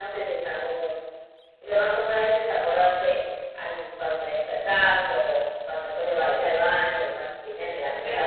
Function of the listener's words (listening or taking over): taking over